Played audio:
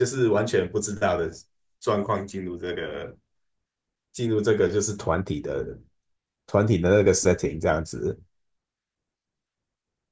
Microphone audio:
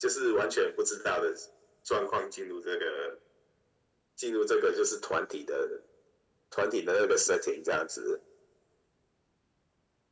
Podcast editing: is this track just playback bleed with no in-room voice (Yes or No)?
Yes